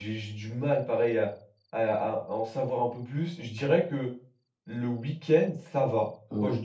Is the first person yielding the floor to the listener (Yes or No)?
No